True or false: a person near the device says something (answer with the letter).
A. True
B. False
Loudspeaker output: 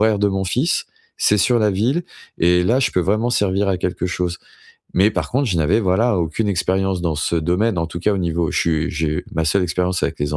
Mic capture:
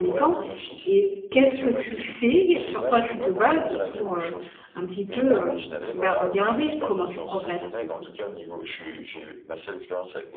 A